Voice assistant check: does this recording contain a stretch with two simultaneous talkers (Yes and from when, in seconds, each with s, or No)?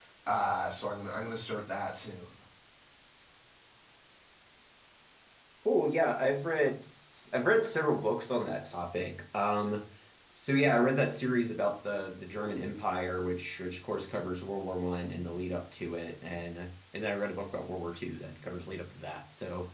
No